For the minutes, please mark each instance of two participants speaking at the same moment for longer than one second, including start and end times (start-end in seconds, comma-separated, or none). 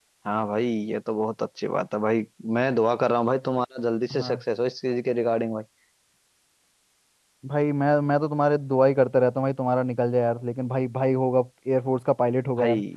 none